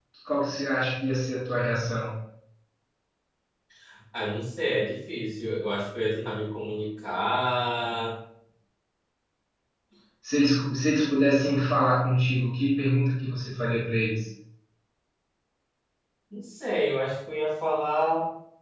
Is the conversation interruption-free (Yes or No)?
Yes